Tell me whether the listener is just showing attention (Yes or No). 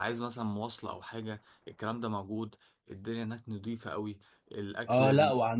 No